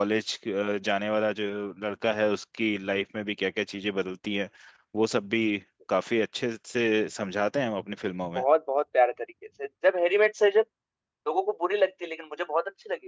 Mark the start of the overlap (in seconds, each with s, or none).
none